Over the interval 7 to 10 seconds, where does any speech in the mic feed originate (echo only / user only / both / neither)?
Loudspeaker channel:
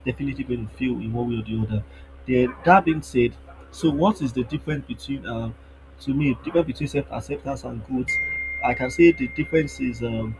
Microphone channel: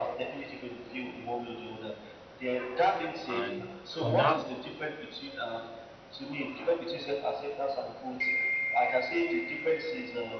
echo only